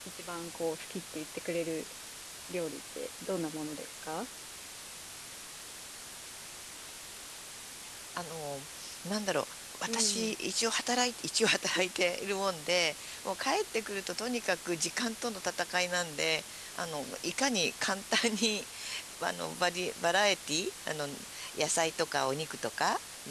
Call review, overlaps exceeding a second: none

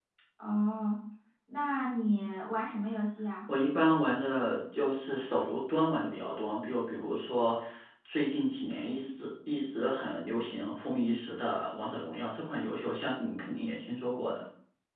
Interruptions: none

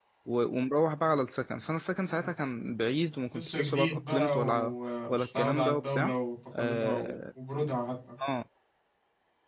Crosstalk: present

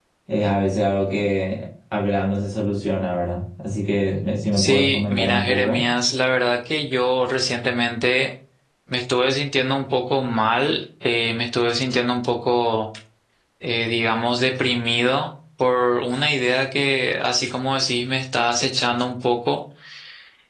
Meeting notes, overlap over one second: present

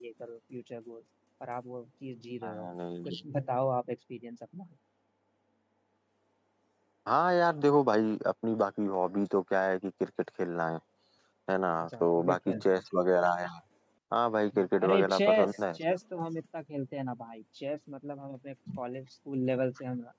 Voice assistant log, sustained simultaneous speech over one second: present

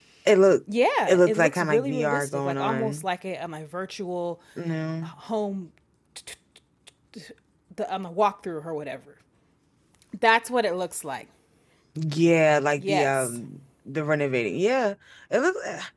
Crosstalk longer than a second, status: present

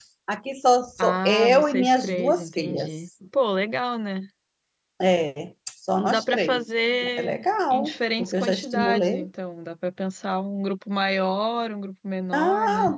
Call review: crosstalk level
present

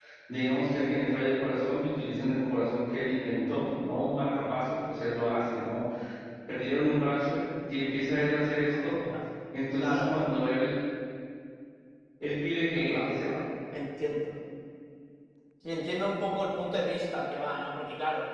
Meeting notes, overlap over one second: none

